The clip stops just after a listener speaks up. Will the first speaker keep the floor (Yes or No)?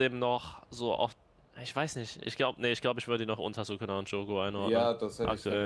No